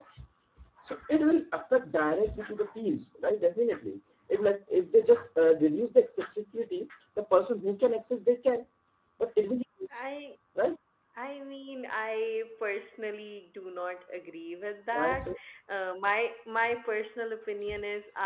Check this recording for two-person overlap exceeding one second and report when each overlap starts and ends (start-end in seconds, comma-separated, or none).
none